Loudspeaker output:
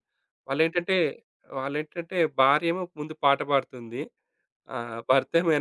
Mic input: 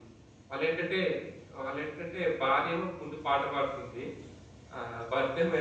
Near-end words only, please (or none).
none